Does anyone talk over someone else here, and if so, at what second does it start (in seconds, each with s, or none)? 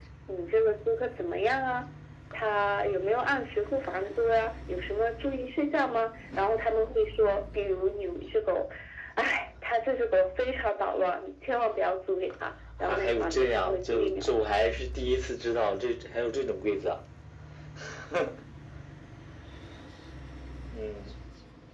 12.8 s